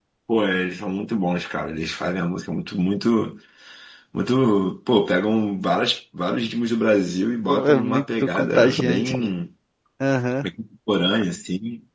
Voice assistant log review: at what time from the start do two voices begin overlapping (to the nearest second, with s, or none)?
7 s